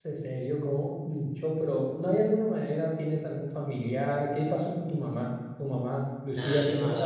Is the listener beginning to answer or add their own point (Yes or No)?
Yes